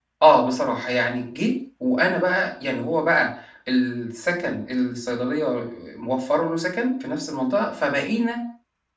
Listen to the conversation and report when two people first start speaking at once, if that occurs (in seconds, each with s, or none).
none